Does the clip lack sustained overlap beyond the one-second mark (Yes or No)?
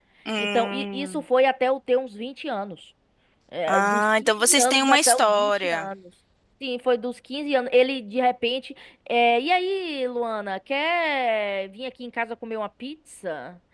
No